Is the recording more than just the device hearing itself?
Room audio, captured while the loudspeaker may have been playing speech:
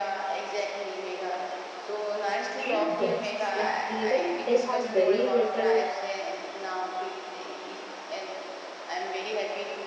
Yes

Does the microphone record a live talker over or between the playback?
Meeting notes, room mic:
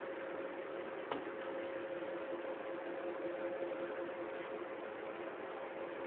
No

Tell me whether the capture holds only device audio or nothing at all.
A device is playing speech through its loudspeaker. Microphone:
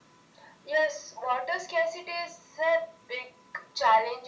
Yes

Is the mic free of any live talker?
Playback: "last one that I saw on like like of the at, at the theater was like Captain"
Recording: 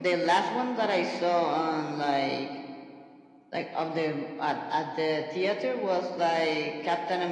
Yes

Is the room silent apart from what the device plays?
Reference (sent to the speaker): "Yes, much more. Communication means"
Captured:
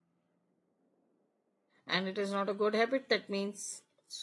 No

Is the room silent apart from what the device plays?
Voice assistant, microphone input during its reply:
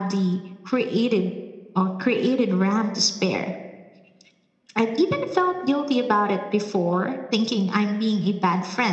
Yes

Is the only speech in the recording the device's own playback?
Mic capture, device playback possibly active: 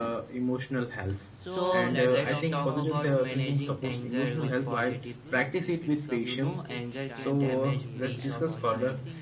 No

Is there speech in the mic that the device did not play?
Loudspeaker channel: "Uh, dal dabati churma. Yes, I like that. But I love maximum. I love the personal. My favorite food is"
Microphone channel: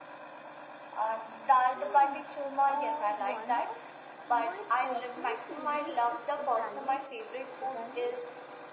Yes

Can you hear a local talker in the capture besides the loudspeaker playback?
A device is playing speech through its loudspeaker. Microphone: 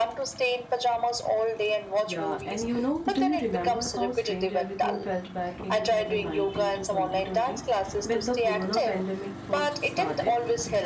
Yes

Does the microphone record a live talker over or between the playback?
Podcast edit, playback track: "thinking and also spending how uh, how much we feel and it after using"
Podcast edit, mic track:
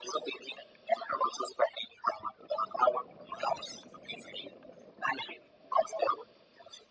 No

